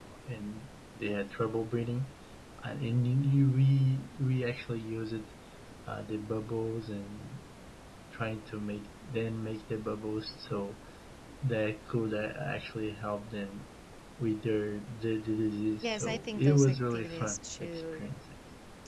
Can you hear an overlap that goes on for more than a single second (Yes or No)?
Yes